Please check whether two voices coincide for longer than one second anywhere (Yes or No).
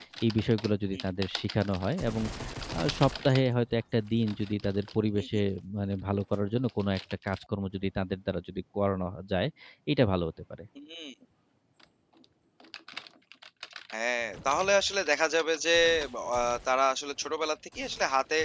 No